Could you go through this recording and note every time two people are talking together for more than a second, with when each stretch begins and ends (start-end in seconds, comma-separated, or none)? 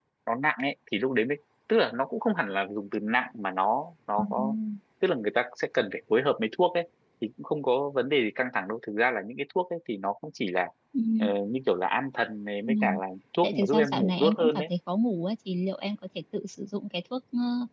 13.4-14.7